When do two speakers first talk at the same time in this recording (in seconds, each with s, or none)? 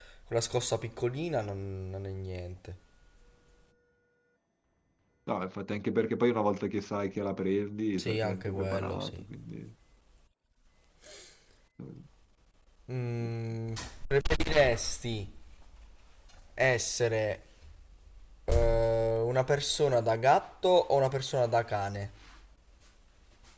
8.0 s